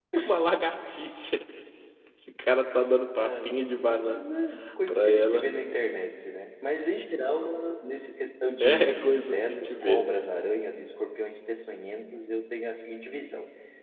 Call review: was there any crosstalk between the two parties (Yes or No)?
Yes